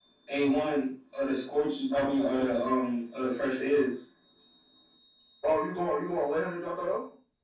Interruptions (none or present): none